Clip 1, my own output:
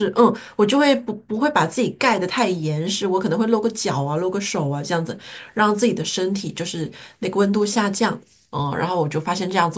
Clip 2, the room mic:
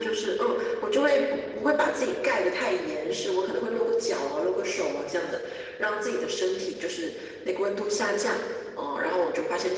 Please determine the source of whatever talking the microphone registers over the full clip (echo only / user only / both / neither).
echo only